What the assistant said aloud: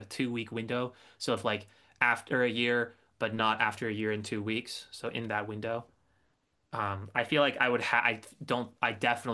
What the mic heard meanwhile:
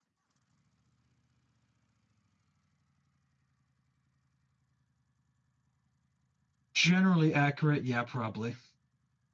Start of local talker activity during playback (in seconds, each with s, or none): 6.7 s